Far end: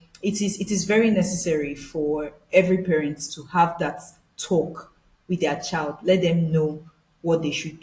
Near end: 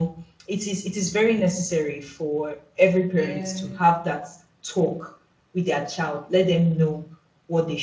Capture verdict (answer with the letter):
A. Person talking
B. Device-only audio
A